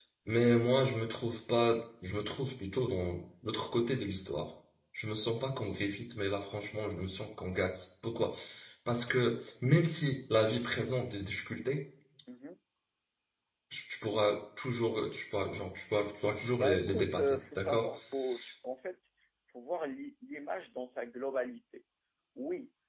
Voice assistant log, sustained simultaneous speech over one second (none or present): present